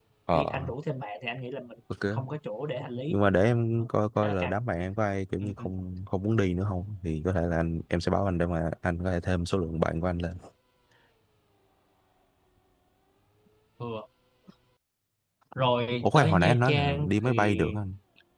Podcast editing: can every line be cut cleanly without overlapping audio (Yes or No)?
No